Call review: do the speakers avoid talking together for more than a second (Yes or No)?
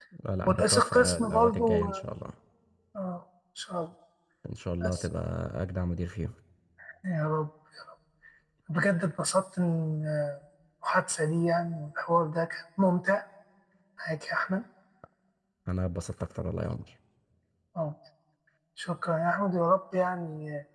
No